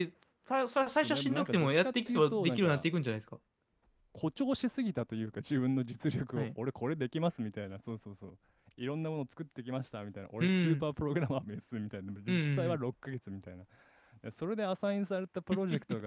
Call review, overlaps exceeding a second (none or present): present